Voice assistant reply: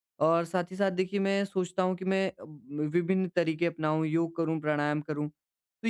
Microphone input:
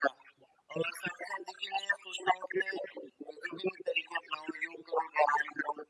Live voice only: none

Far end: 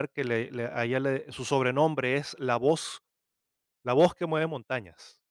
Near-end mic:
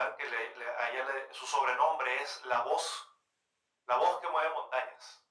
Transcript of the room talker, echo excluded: none

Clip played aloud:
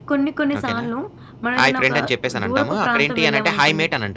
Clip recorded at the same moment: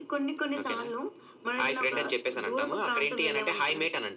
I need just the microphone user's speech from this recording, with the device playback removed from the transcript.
none

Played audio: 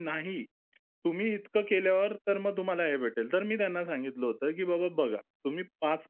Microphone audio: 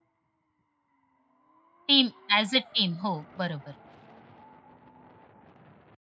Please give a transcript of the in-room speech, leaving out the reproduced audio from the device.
टीम ॲज अ टीम. हो, बरोबर.

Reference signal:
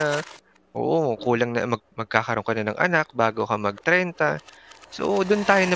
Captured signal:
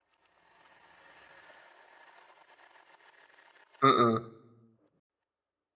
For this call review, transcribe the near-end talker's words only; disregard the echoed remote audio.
mm.

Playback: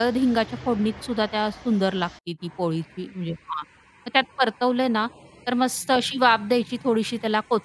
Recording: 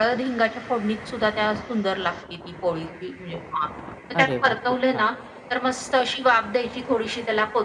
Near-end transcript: अरे वाह! खूप छान.

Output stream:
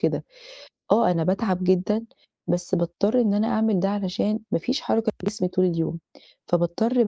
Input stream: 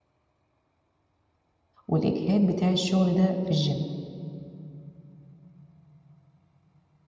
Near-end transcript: والإجهاد بتاع الشغل ده في الgym.

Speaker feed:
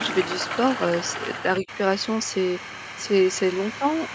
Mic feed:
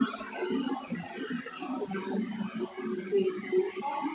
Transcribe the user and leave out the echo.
none

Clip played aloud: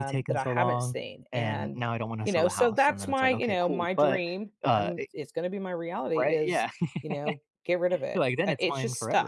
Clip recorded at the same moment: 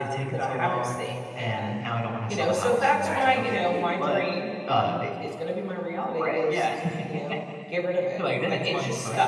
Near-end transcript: Right, I mean, so these are

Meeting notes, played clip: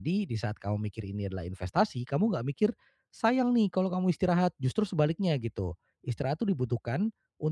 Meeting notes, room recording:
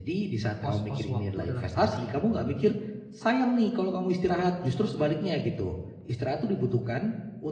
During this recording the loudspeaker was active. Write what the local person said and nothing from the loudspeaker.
pos-pos waktu dalam sehari gitu. Jadi

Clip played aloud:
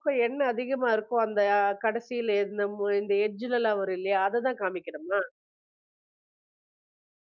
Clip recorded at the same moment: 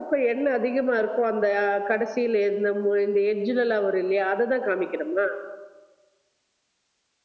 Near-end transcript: none

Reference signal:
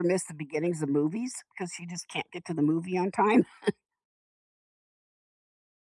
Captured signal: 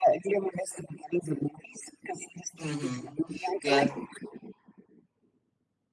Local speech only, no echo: Mhm. Yes,

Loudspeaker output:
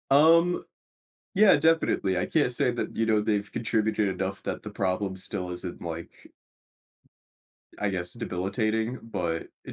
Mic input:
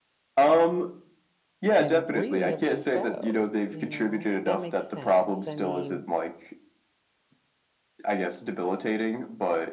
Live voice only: and reasonably so, you know? That makes sense. I mean,

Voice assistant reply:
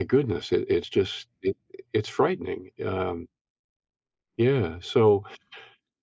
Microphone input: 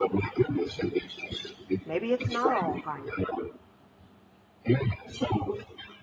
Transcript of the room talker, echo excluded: Maybe it's not all hype.

